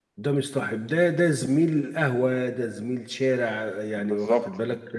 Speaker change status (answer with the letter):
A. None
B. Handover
A